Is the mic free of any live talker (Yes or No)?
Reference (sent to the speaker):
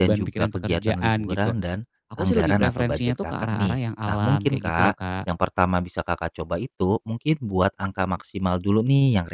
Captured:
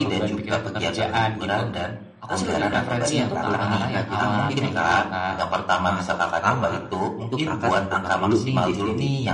No